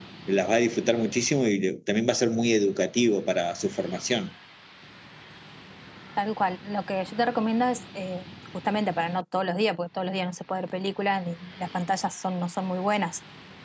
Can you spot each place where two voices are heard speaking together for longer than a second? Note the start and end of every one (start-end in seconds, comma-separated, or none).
none